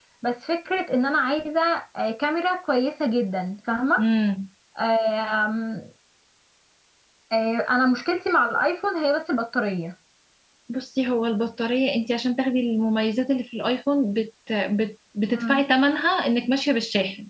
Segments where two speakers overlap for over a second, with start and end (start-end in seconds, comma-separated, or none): none